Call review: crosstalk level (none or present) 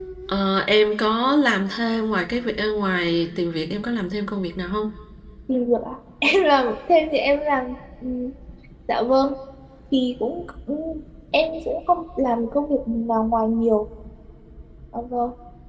none